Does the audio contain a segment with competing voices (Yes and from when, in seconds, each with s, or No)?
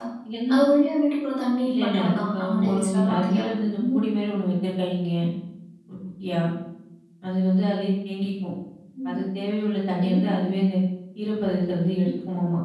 Yes, from 1.6 s